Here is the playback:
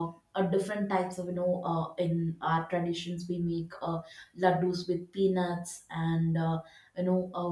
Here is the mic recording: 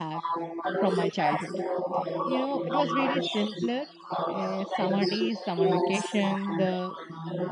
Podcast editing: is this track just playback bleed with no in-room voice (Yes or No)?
No